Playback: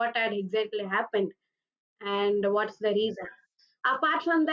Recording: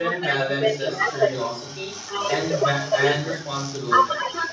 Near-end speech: present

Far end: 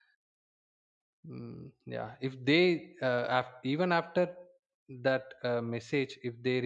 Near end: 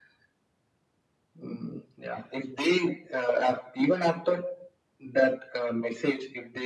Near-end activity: none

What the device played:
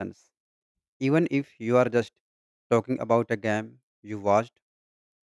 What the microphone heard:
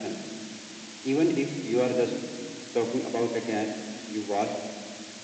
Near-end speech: none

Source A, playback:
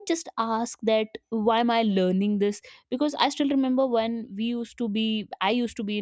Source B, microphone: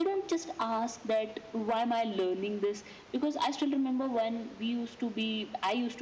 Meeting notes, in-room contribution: none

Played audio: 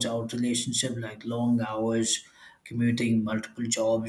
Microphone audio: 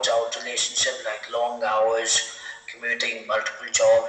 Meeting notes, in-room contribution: none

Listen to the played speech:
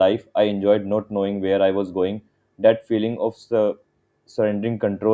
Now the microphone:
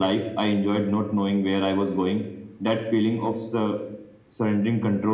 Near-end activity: none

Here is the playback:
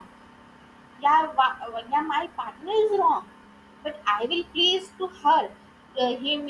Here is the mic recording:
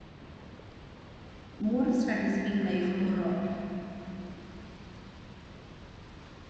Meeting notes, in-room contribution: present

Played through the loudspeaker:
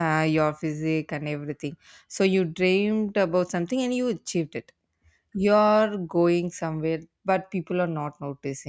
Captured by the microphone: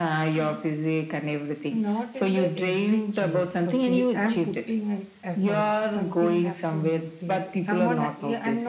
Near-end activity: present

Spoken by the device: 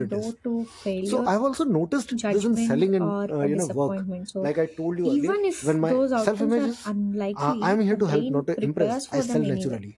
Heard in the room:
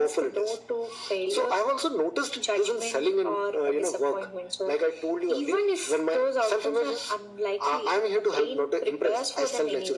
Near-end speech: none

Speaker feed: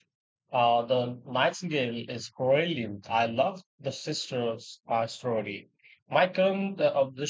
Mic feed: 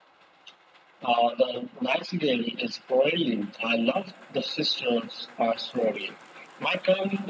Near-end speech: none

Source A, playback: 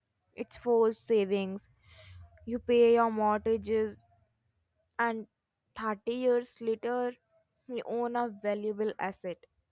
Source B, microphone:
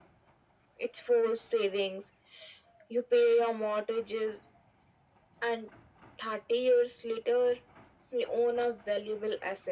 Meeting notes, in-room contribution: none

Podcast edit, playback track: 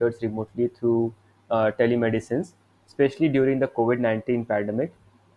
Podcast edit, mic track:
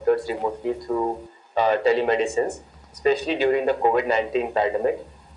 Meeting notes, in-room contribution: none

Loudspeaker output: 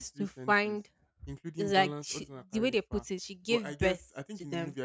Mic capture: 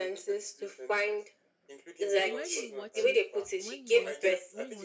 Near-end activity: present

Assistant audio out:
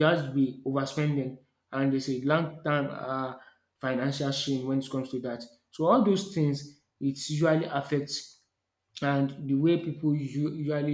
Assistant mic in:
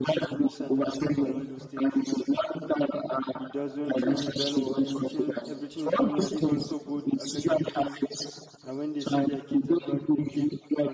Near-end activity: present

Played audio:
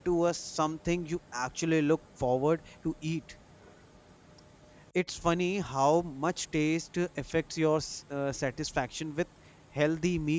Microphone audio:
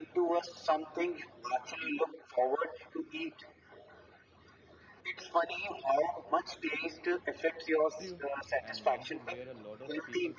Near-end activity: present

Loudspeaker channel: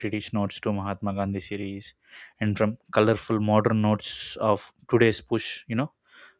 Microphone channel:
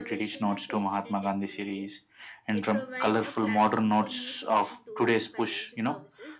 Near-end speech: present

